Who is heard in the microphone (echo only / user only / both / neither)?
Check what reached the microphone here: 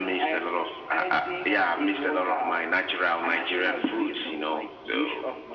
echo only